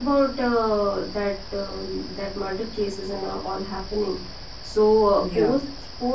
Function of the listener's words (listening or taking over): listening